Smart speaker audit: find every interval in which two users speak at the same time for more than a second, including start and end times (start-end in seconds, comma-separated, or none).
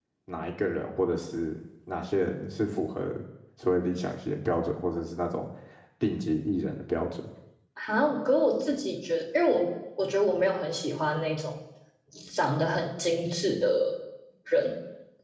none